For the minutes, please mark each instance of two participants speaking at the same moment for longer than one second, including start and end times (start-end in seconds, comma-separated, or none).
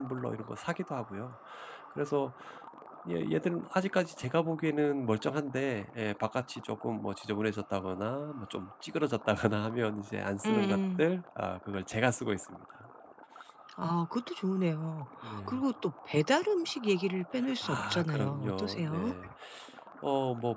17.6-19.1